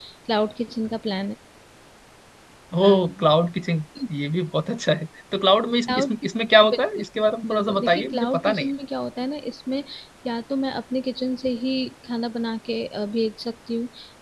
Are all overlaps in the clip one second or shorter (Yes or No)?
No